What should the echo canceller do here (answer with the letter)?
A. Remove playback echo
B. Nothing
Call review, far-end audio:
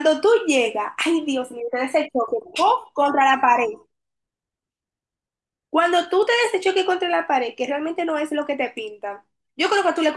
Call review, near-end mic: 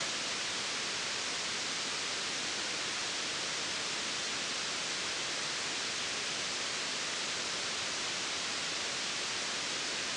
B